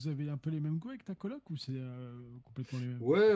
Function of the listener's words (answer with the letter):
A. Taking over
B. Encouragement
A